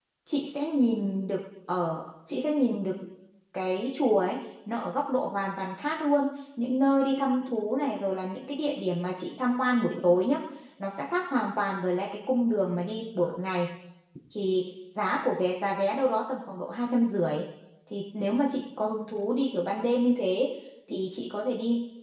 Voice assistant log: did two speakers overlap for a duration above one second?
No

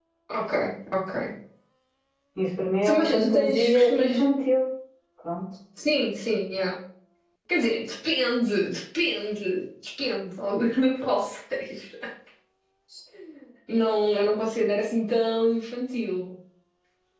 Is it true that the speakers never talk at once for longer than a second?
No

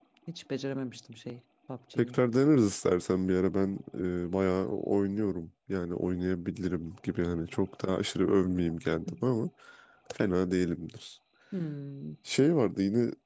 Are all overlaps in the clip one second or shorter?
Yes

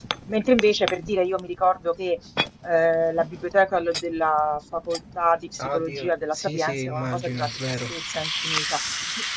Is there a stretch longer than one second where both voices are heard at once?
Yes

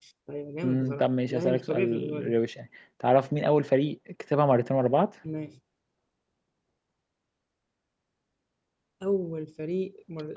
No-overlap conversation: No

